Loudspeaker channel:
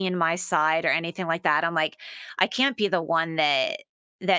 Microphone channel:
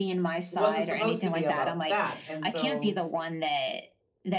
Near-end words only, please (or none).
It wasn't supposed to be about that, and so